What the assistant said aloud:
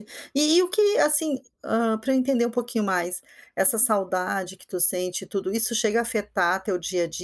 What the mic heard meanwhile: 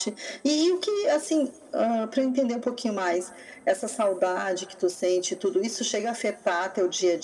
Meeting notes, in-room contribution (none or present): none